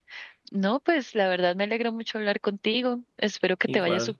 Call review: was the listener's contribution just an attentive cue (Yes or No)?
Yes